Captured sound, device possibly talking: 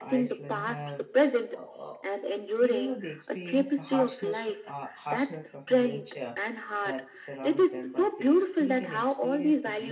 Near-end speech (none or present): present